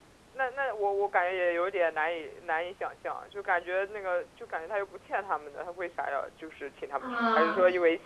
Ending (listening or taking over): taking over